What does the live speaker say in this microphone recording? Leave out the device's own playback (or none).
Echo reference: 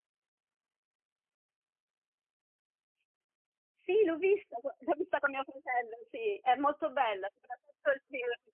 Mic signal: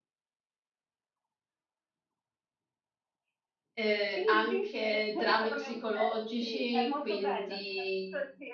eh, anche drammi psicologici, quindi